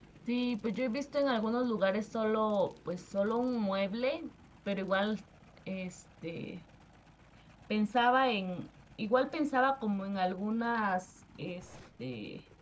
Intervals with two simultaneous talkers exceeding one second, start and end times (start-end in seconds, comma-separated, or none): none